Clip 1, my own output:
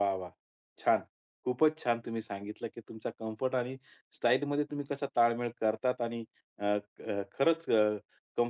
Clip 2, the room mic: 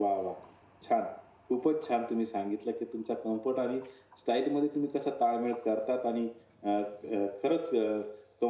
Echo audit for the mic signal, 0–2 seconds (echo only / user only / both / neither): echo only